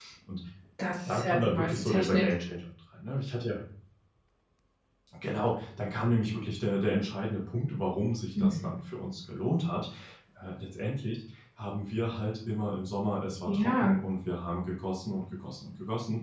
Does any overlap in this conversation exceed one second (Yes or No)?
Yes